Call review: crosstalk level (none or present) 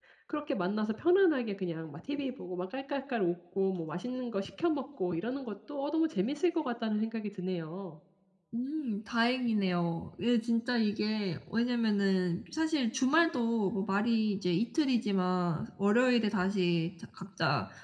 none